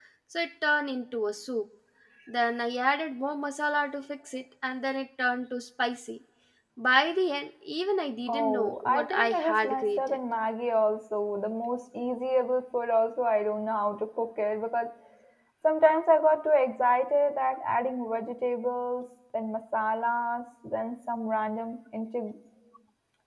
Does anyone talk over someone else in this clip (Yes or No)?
Yes